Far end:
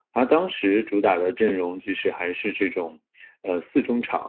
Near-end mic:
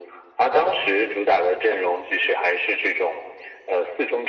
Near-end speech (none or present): none